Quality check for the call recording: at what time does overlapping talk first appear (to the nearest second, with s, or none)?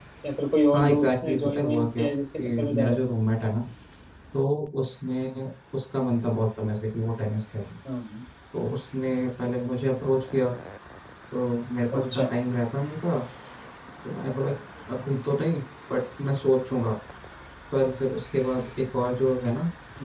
1 s